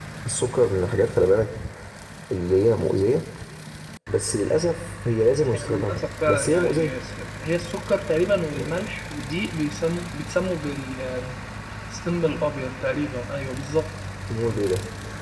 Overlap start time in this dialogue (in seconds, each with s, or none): 5.5 s